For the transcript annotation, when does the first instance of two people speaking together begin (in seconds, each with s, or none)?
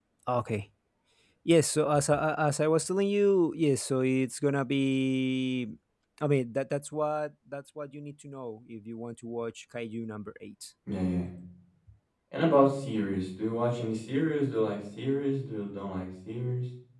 none